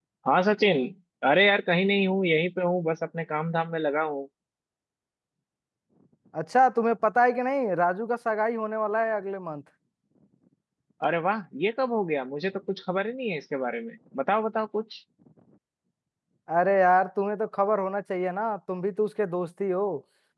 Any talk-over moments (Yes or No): No